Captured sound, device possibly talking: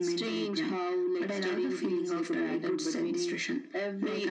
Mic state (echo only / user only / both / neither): echo only